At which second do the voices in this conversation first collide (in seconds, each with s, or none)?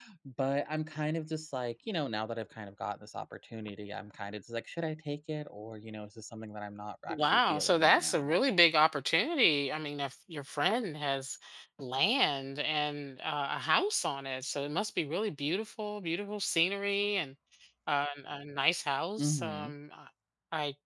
7.1 s